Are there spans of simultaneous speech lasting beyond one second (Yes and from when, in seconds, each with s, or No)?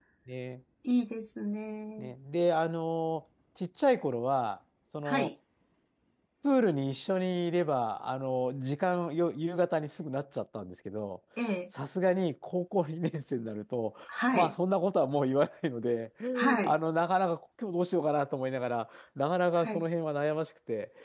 No